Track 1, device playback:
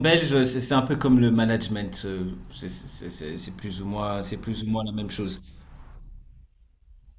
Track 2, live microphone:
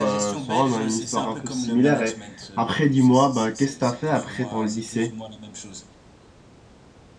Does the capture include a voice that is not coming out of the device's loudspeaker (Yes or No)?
Yes